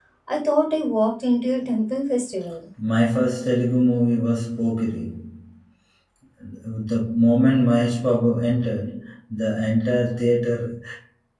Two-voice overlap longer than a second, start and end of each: none

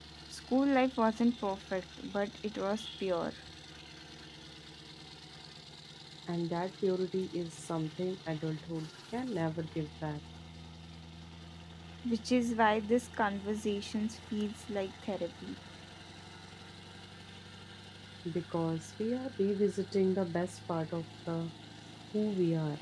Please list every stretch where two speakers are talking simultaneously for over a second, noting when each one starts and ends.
none

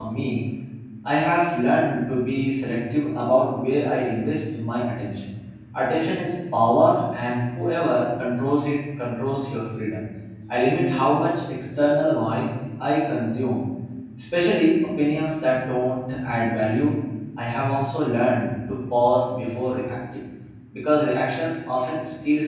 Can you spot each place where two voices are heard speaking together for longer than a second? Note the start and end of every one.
none

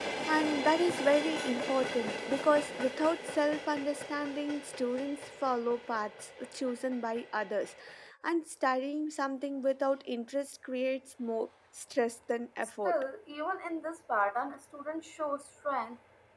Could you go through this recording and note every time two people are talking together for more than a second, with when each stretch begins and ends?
none

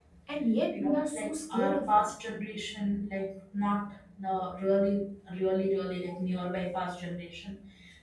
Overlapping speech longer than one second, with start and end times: 0.7-2.0

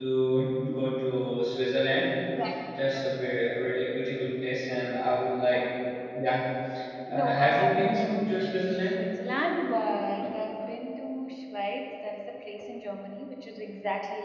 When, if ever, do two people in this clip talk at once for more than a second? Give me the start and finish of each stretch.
7.1-8.9

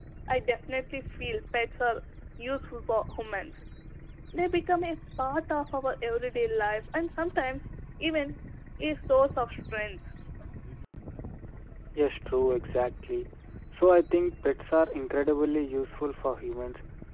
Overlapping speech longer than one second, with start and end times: none

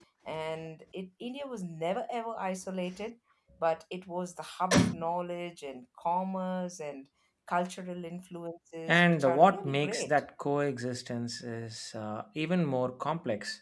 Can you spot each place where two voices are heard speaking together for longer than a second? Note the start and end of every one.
8.9-10.1

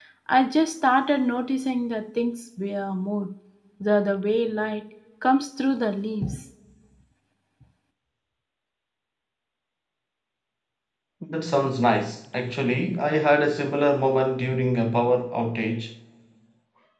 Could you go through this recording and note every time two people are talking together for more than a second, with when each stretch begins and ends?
none

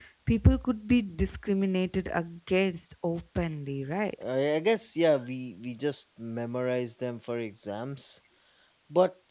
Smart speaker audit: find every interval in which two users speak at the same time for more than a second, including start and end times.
none

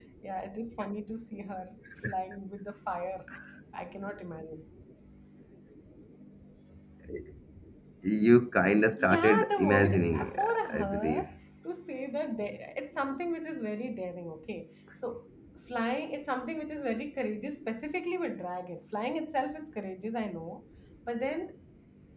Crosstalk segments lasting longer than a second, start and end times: 9.0-11.3

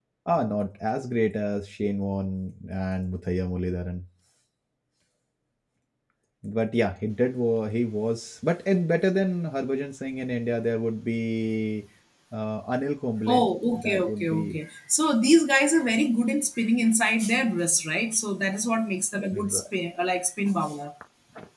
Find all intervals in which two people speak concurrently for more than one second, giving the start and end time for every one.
13.3-14.6

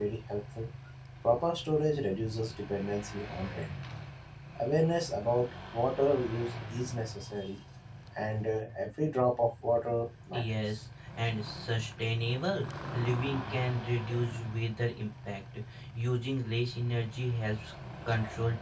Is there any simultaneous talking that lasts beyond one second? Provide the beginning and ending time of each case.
none

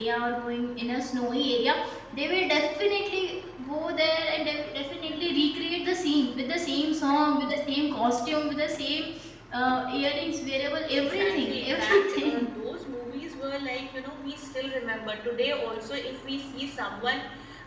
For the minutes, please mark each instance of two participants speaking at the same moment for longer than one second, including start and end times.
10.9-12.5

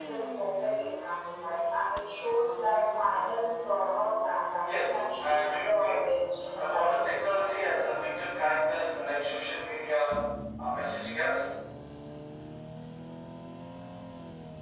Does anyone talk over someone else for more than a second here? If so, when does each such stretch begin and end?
4.6-6.1

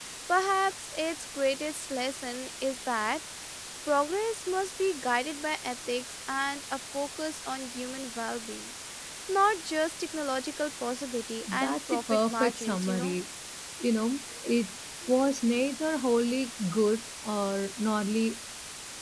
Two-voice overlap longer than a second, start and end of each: 11.5-13.2

